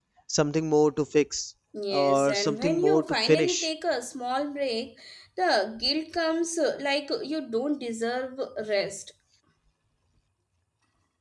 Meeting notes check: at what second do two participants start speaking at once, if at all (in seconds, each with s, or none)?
1.7 s